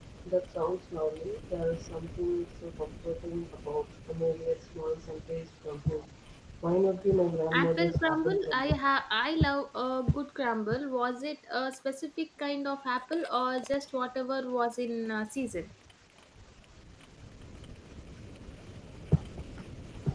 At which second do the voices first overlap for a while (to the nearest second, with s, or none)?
8 s